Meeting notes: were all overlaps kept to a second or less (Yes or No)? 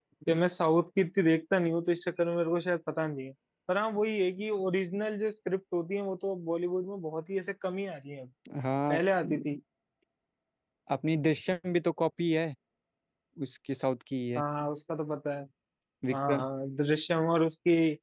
Yes